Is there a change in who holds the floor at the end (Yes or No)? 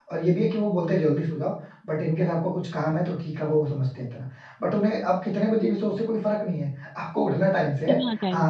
No